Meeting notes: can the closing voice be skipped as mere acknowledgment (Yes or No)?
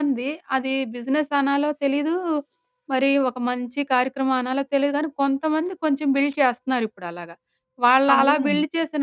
Yes